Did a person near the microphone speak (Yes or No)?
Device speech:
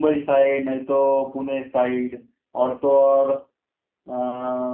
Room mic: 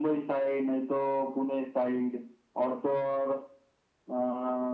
No